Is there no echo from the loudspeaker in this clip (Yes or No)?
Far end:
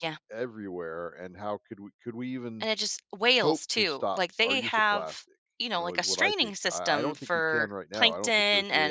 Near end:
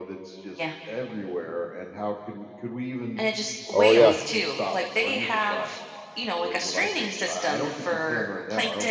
No